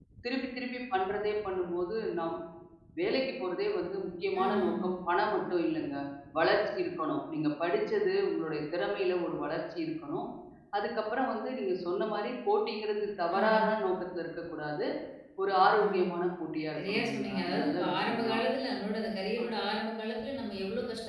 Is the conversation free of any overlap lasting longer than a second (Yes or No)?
No